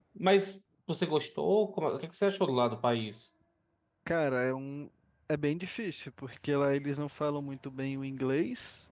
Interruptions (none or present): none